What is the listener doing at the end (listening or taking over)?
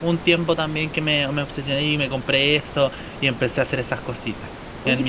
taking over